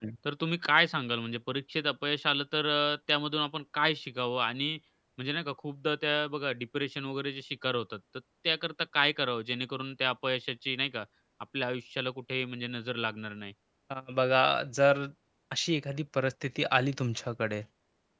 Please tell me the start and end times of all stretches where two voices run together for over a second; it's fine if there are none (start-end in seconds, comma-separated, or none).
none